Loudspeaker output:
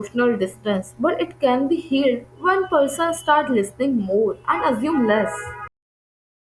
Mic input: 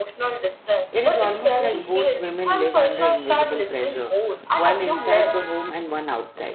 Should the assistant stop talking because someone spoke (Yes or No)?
Yes